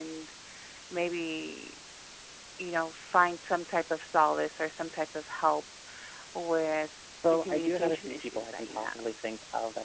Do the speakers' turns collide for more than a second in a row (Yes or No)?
Yes